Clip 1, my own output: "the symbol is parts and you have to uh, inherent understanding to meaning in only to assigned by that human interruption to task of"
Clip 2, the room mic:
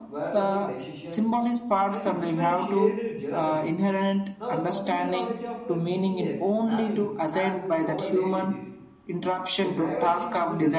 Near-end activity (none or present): present